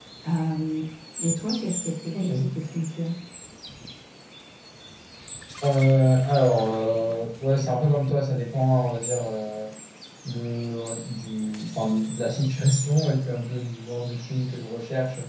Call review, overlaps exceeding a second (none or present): none